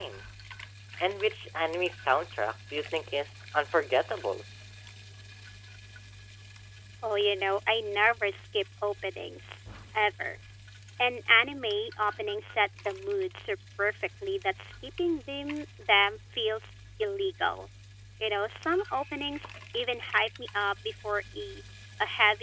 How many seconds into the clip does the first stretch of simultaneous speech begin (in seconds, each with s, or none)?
none